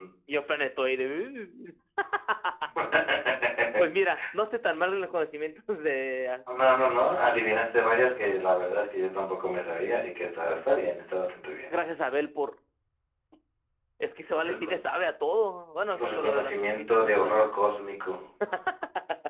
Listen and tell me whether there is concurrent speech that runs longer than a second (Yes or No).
Yes